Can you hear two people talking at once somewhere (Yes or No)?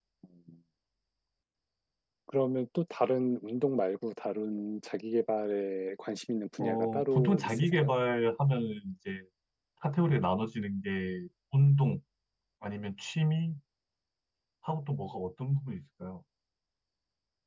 Yes